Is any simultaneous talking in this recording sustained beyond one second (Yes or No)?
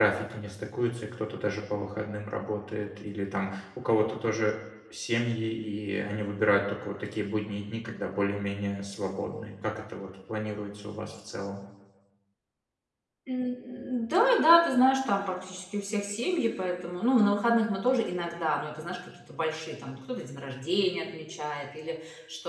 No